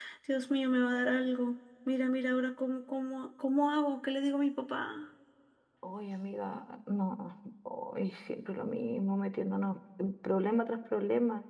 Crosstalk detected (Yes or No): No